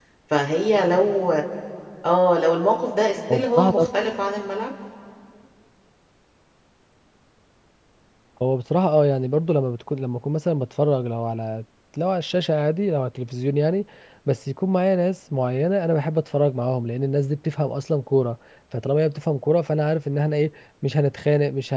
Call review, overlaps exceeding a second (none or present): none